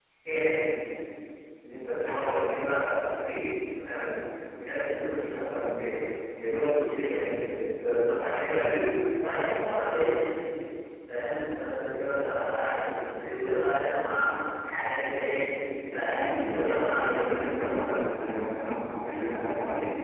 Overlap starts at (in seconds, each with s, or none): 16.1 s